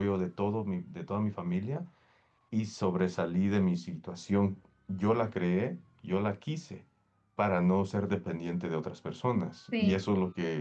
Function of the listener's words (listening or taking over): listening